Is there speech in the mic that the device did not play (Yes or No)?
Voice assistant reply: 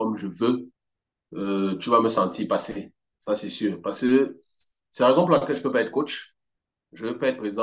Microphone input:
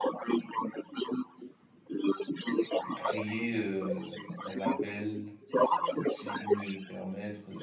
Yes